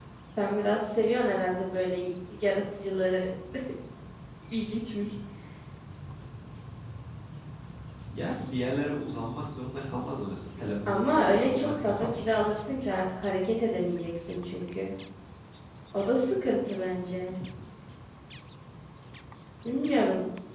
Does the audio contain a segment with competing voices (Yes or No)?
Yes